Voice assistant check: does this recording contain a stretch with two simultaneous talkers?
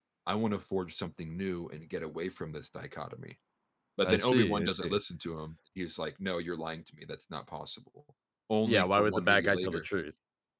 Yes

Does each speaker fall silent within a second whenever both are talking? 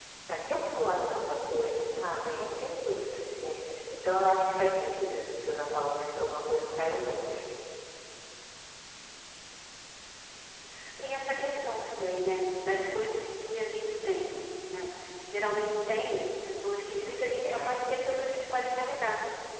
Yes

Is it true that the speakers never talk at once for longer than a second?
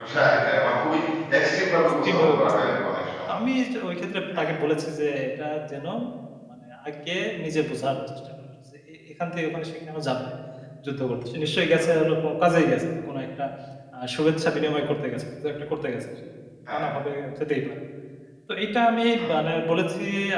No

